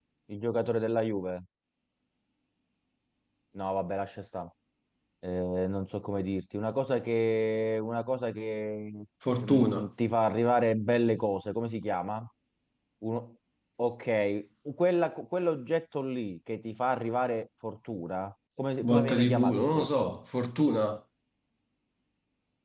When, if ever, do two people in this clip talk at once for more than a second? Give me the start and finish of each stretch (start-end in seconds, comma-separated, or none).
18.9-20.2